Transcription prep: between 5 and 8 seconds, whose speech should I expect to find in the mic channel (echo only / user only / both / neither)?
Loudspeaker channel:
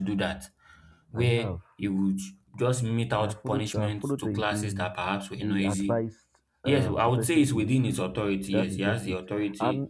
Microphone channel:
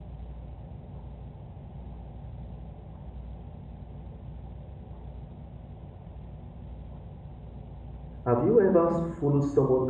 neither